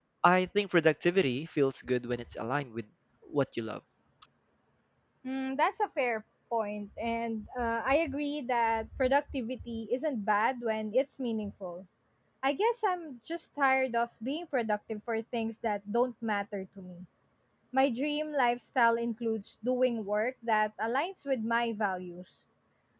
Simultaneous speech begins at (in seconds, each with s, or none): none